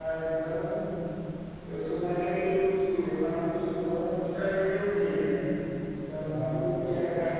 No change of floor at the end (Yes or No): Yes